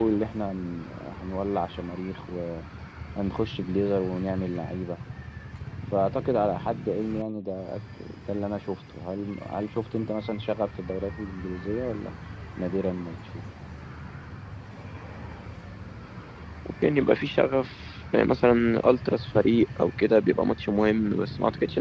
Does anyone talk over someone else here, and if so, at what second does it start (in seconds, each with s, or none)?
none